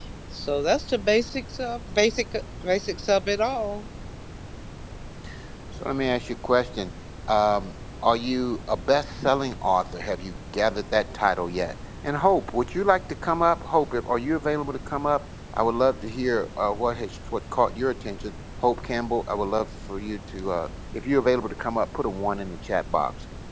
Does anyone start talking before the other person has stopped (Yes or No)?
No